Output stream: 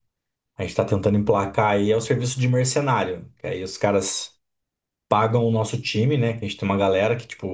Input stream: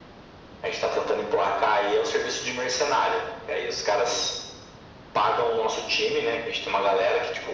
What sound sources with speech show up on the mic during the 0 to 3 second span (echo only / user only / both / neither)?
echo only